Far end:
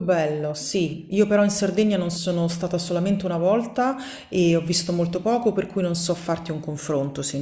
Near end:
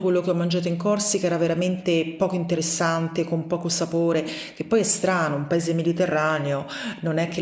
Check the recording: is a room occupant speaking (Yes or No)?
Yes